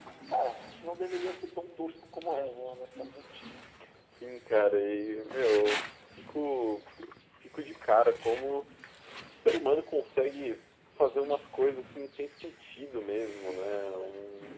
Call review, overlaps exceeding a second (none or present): none